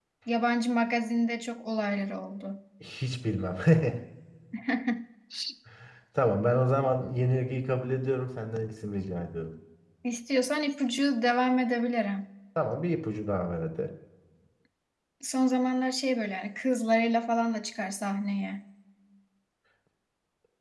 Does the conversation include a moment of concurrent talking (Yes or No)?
No